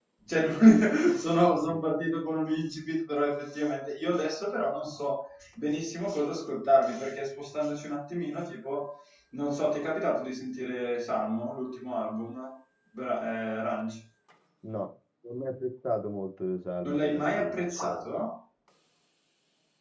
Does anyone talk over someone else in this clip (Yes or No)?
Yes